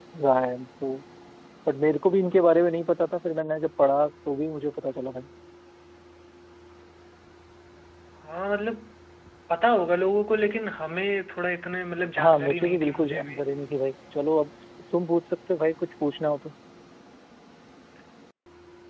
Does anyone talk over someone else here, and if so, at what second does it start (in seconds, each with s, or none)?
12.2 s